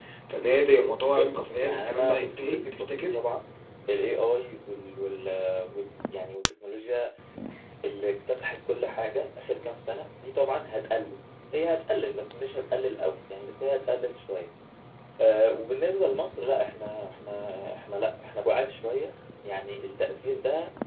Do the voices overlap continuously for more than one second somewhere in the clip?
Yes, from 1.2 s

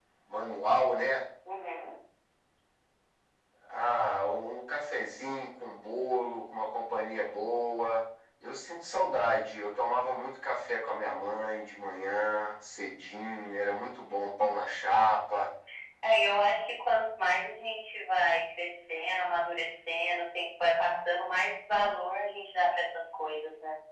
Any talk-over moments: No

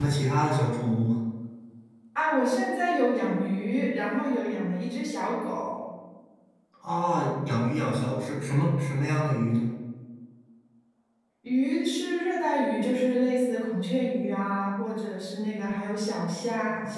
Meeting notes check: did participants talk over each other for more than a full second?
No

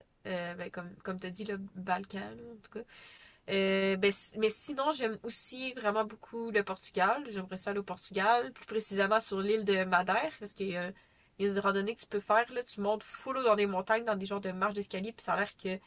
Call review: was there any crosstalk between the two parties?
No

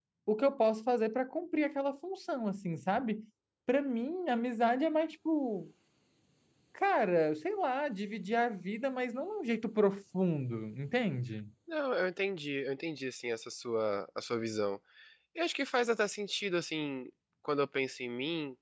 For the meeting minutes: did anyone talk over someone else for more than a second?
No

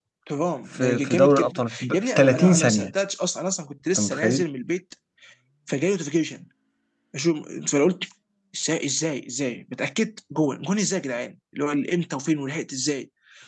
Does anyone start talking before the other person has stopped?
Yes, from 0.7 s

